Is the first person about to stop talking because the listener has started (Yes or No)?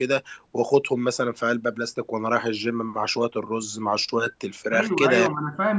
Yes